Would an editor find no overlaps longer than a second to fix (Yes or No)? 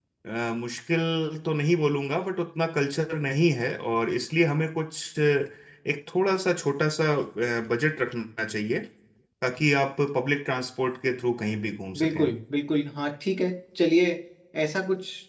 Yes